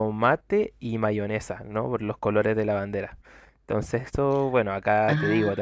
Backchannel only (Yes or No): Yes